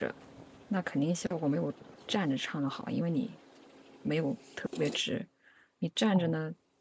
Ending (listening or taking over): listening